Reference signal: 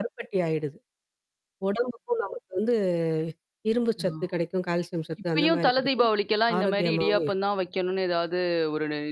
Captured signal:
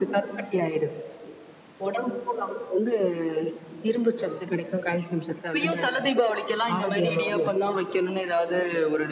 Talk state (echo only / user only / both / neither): echo only